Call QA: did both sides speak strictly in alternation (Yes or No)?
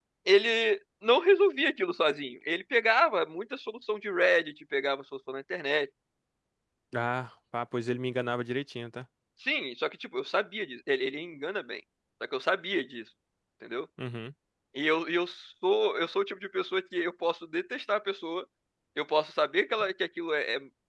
Yes